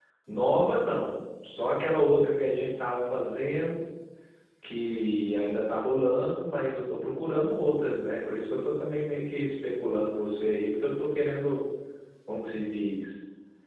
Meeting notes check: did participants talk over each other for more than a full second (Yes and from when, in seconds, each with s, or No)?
No